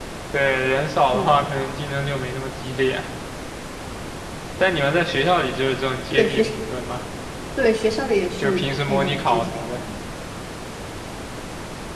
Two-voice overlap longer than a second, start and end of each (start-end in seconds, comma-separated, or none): 8.4-9.8